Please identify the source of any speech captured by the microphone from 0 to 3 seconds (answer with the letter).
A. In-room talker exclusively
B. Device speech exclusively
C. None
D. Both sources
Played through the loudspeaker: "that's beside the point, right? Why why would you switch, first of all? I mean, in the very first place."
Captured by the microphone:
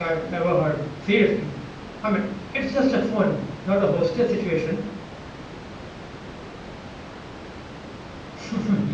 A